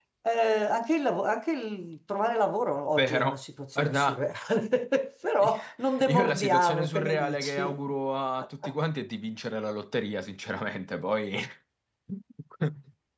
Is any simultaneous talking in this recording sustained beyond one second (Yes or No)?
Yes